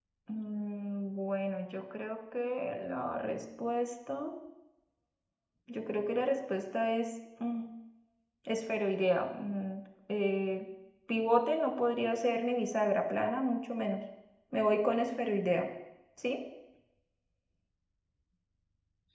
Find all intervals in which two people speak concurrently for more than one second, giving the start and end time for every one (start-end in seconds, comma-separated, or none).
none